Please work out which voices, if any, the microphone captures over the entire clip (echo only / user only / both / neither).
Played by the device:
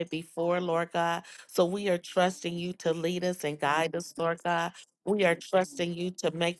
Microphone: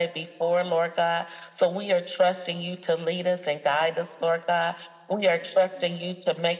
echo only